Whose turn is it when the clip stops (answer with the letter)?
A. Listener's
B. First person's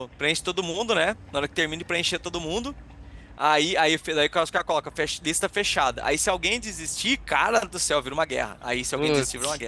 B